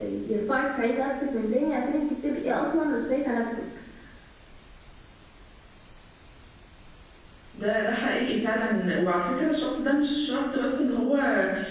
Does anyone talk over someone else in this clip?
No

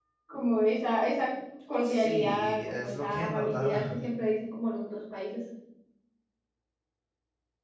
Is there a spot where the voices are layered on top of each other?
Yes, from 1.8 s

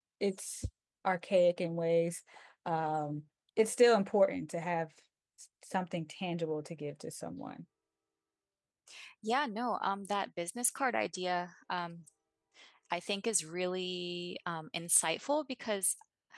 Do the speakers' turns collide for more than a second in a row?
No

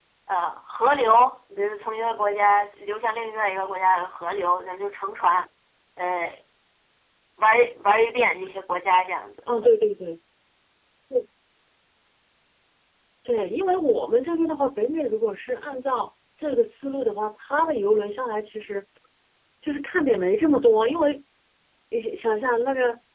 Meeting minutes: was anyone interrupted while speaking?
No

